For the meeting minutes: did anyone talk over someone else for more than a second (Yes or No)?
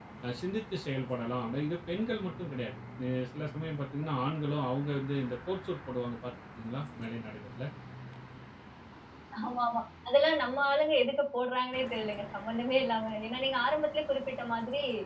No